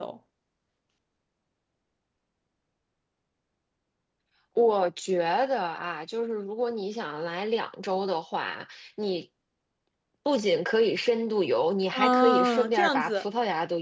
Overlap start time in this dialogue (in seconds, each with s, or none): 11.9 s